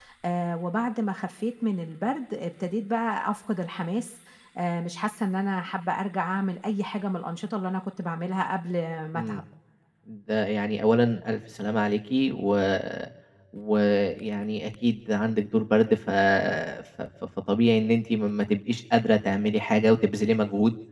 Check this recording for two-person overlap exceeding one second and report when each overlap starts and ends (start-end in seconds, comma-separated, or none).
none